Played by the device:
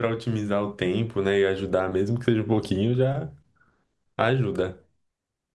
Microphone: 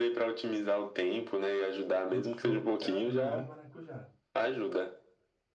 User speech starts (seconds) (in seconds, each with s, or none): 2.1 s